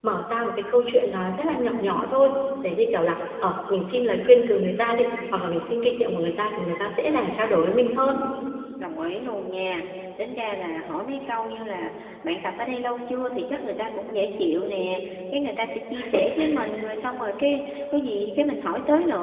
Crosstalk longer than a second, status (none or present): none